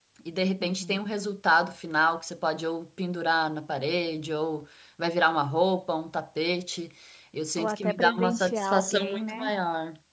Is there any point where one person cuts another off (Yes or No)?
Yes